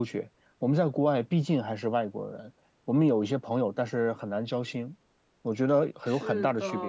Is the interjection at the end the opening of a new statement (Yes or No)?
Yes